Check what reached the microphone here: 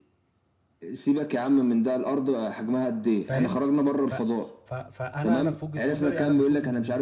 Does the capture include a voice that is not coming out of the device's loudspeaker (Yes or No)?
Yes